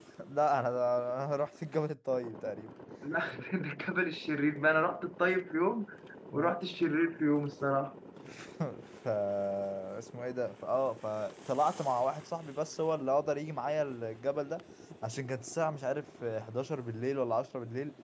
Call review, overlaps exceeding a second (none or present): none